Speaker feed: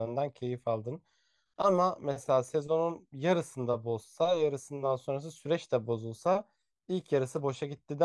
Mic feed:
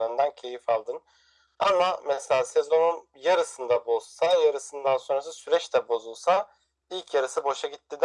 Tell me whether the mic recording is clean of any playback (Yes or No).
No